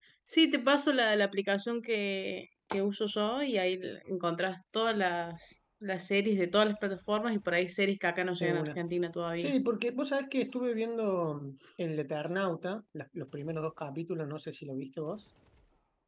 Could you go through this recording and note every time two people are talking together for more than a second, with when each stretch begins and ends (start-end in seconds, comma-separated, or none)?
none